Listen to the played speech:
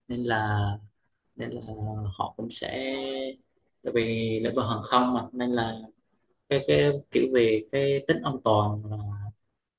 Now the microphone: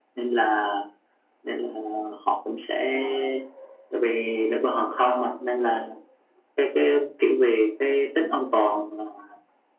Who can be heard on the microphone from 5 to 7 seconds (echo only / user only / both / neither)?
echo only